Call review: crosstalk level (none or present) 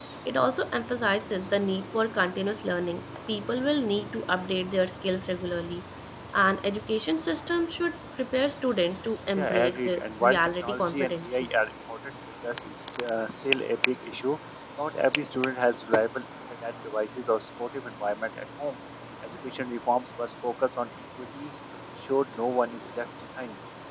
present